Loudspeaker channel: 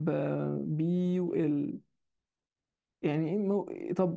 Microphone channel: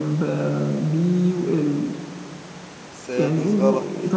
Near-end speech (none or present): present